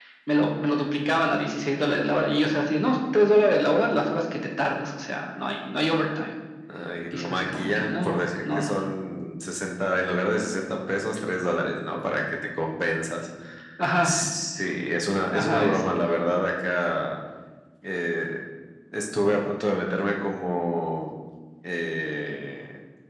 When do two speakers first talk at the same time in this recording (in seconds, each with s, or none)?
7.1 s